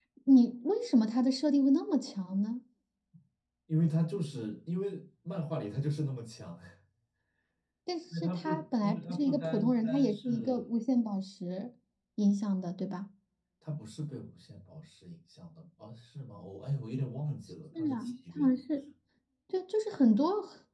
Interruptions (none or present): present